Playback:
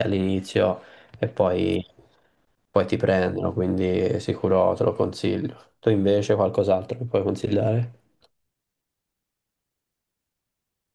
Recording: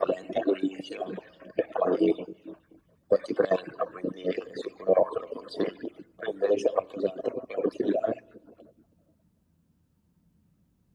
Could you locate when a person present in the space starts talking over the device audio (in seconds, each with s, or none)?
none